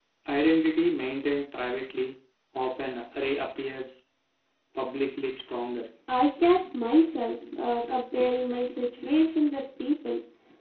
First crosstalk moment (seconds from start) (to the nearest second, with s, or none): none